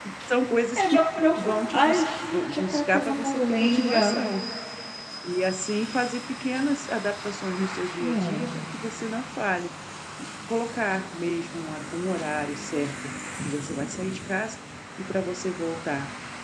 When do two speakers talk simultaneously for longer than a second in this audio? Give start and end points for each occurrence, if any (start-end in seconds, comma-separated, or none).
1.4-4.1